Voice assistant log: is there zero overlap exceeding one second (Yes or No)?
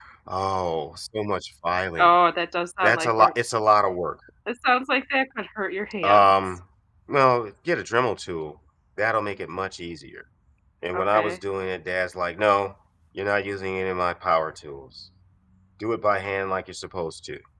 Yes